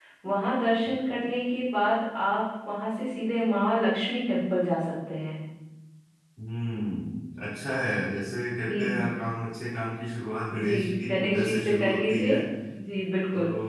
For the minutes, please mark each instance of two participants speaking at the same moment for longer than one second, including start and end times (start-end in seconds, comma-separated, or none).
10.6-12.3